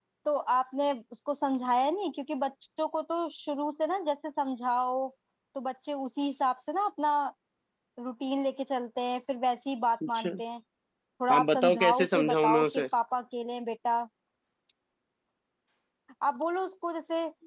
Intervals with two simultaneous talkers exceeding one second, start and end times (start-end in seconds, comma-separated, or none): 11.3-12.8